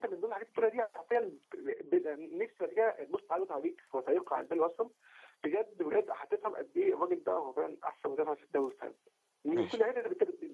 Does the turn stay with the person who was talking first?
Yes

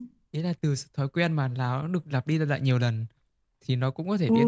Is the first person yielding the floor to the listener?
Yes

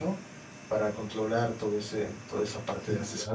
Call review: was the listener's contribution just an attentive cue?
No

